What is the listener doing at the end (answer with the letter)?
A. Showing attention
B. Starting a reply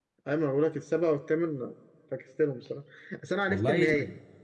A